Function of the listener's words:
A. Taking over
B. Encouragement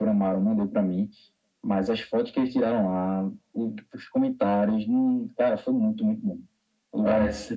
A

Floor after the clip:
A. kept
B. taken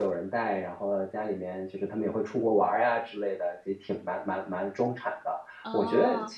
A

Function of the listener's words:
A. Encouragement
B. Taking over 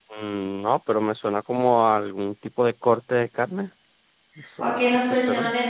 B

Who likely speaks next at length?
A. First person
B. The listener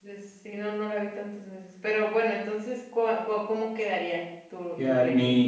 B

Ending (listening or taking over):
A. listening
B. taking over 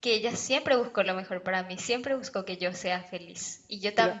A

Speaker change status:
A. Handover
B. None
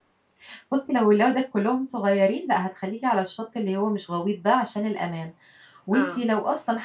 B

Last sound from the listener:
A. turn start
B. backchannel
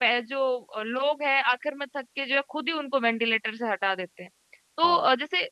B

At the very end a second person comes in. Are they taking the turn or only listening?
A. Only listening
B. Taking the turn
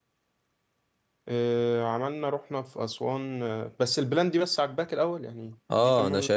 B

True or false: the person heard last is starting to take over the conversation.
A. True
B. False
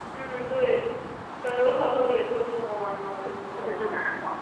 A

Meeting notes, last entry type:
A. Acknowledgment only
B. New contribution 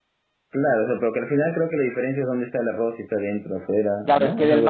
B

